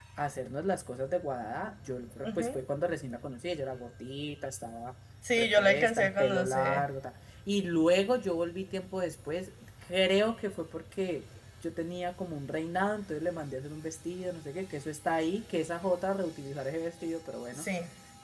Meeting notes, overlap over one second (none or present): present